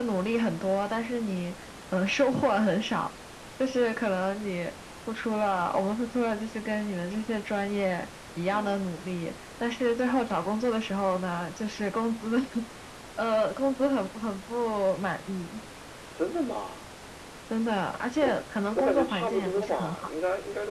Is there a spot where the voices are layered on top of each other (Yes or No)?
Yes